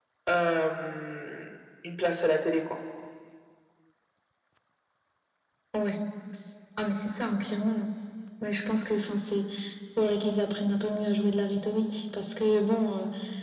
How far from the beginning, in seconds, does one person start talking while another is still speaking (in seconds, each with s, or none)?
none